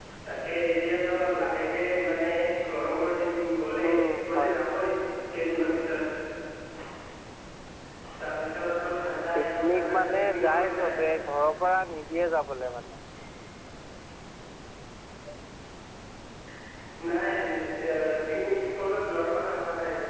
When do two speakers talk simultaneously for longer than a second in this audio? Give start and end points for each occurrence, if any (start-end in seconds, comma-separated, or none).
9.4-11.0